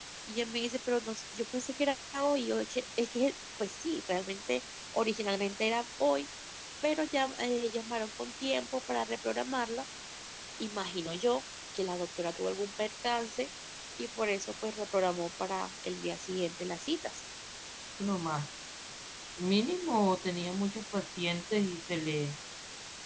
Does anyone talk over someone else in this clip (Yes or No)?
No